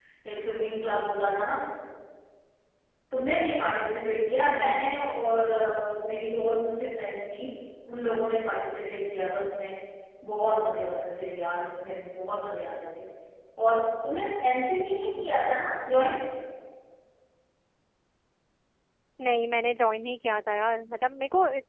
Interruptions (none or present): none